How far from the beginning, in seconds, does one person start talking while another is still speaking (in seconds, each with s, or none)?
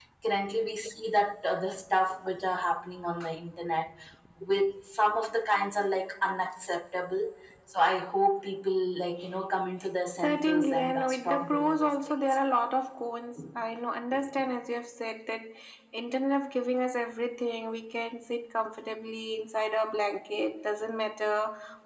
10.2 s